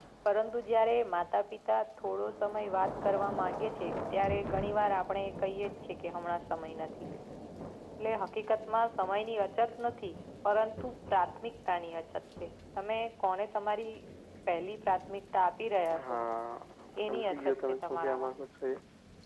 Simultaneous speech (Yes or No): Yes